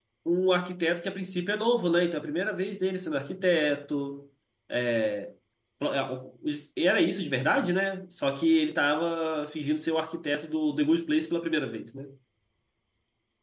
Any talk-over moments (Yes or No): No